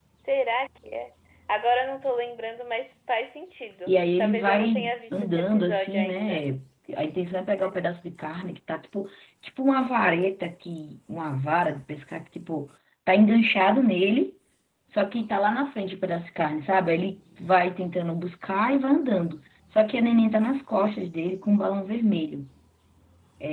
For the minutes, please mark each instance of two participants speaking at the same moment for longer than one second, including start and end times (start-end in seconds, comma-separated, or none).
3.9-6.4